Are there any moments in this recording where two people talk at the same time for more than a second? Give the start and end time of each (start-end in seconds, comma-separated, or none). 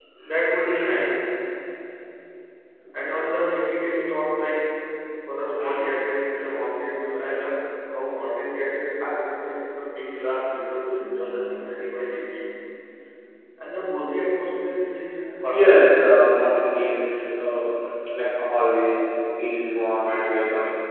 none